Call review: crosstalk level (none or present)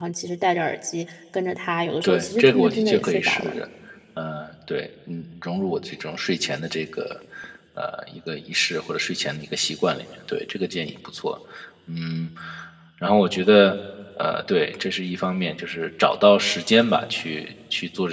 present